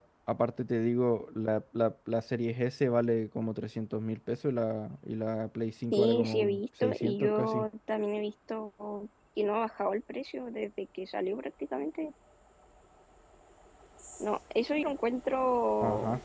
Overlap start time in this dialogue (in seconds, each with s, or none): 5.9 s